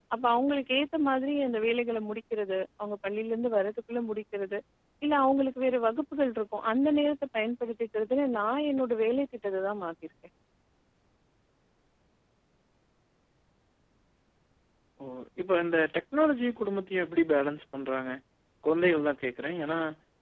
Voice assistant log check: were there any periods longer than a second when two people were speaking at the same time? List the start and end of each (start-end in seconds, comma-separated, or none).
none